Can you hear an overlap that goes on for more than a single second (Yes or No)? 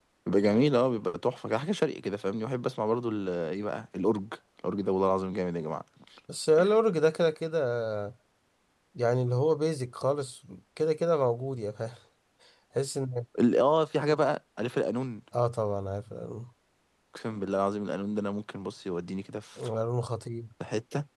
No